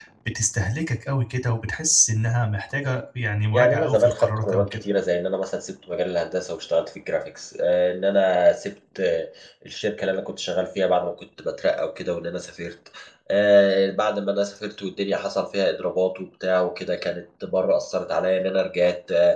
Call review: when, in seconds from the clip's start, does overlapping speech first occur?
3.5 s

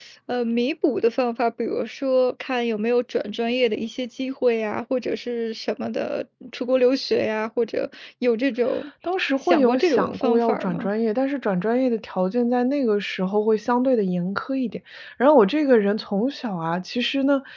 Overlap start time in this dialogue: 9.4 s

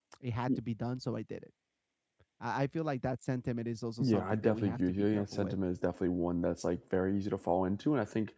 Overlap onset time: 4.0 s

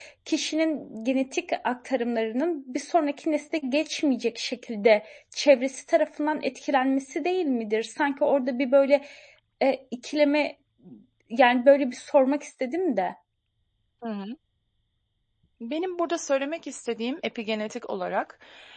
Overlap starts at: none

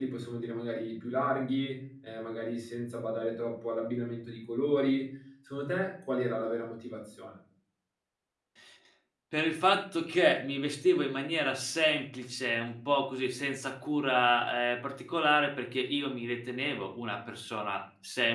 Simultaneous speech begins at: none

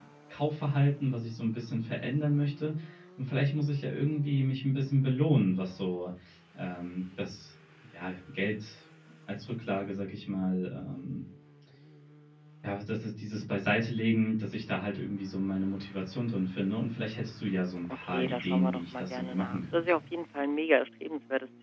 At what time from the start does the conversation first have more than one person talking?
18.1 s

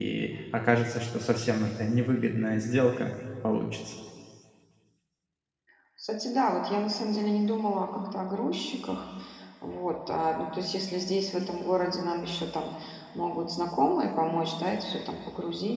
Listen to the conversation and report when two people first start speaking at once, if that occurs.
none

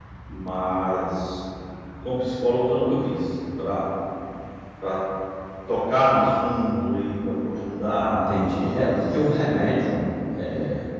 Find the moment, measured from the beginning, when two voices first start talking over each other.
8.1 s

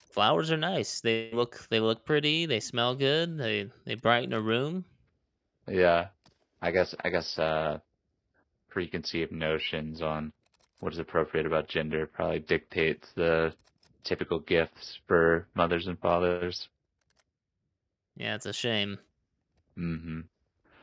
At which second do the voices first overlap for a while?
none

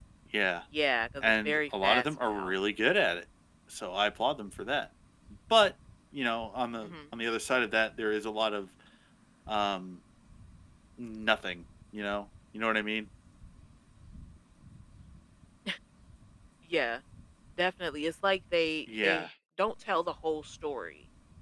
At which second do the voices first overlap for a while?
1.2 s

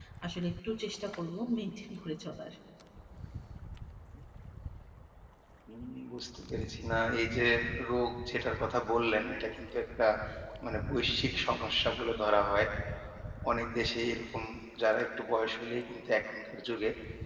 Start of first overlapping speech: none

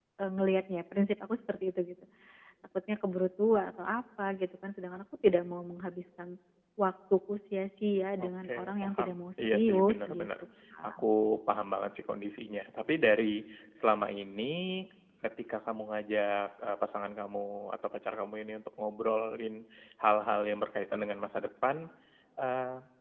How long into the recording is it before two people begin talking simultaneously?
8.2 s

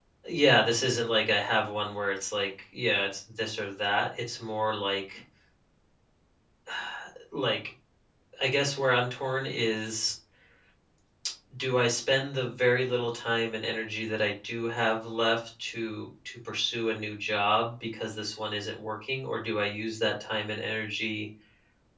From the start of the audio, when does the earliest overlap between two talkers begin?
none

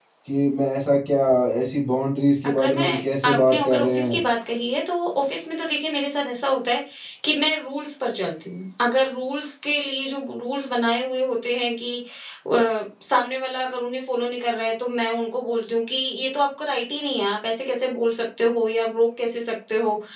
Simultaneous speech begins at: 2.4 s

